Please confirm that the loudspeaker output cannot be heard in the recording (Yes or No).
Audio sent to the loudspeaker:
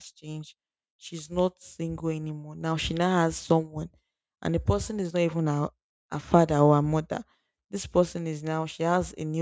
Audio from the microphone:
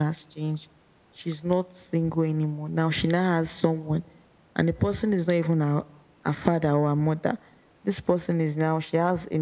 No